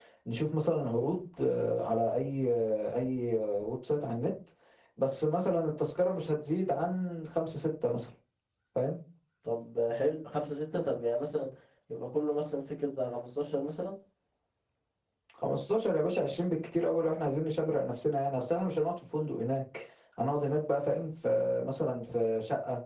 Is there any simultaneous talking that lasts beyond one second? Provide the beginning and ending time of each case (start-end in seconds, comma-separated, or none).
none